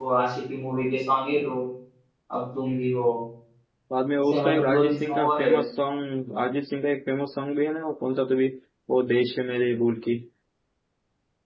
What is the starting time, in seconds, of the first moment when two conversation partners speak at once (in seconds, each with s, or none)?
4.3 s